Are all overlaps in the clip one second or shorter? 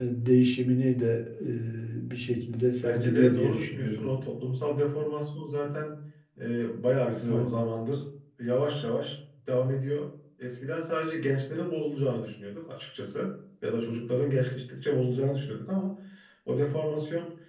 No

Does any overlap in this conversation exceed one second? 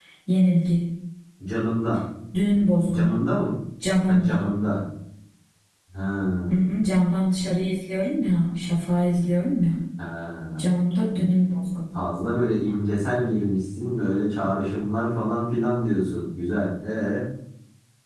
No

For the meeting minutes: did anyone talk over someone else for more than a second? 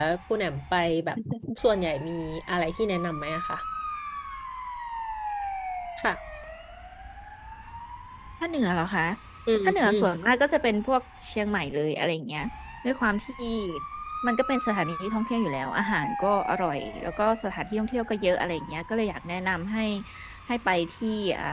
No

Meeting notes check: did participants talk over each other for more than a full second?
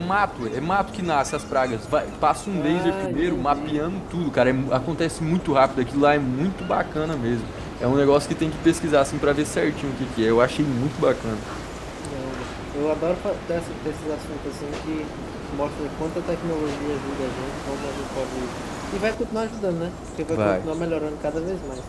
Yes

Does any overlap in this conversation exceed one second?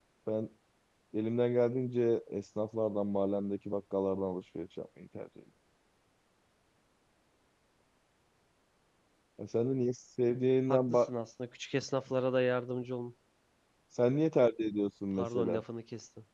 No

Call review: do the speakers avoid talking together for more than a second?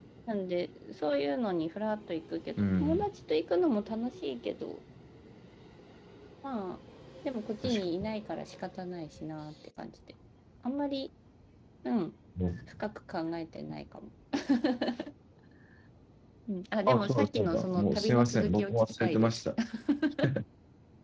No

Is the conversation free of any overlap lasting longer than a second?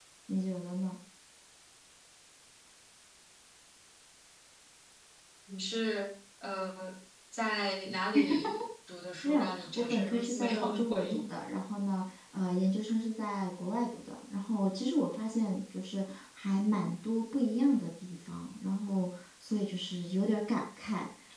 No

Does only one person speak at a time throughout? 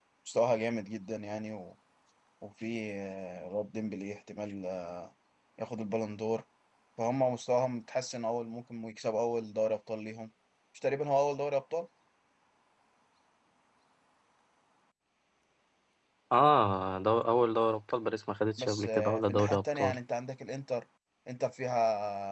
No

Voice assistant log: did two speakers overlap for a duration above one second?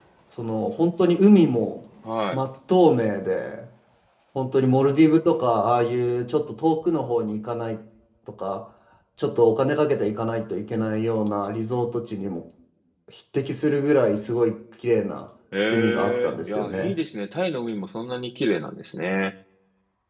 Yes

